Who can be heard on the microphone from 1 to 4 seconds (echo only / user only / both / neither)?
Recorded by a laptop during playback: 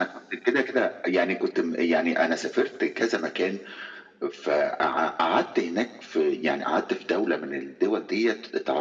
echo only